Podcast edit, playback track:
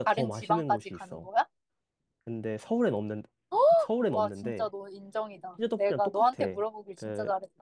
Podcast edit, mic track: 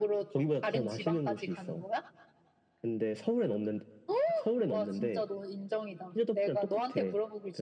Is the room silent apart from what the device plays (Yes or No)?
Yes